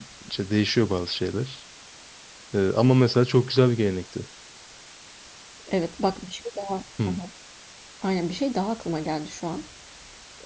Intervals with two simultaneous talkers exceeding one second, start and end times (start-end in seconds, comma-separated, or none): none